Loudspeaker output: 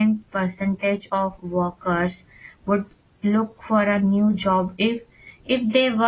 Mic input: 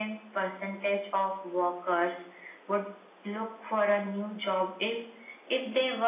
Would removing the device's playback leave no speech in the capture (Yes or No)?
Yes